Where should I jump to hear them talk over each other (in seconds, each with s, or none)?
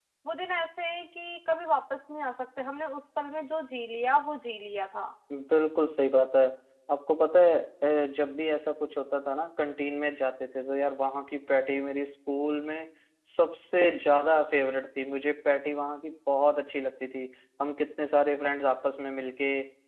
none